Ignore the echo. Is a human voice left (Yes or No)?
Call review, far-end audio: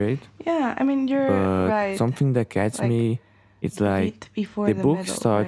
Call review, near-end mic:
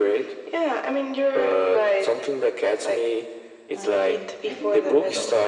Yes